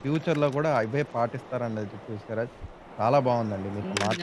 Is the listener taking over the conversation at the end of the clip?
No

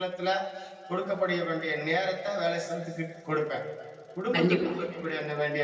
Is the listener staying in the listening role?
Yes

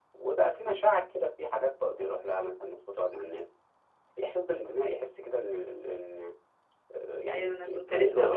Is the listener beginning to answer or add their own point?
Yes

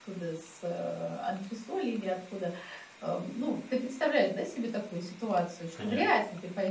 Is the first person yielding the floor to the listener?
No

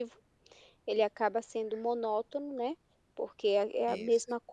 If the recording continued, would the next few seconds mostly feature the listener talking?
No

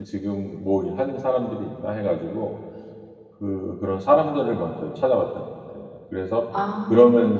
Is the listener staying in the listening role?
Yes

